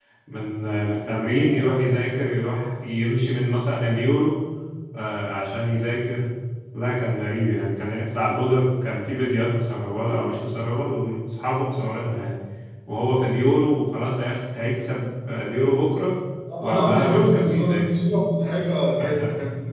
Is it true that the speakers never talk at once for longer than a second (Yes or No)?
No